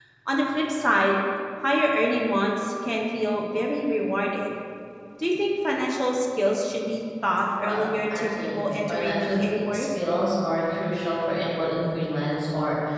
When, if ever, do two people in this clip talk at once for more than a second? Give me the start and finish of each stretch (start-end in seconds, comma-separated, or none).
7.6-9.8